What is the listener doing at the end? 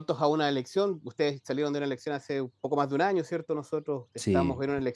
listening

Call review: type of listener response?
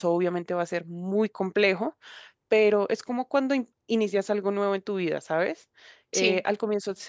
listening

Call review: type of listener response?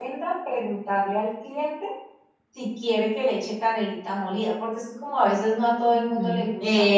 taking over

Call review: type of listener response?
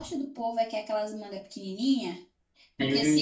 listening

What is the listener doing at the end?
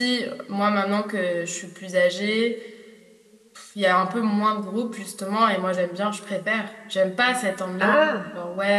listening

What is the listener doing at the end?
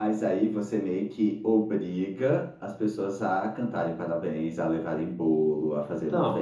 taking over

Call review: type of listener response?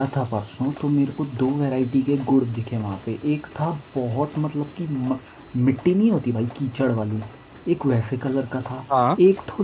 listening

